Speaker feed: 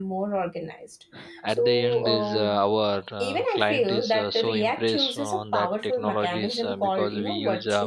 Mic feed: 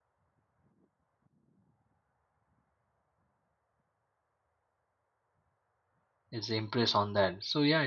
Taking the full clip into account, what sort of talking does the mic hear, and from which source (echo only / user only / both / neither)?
user only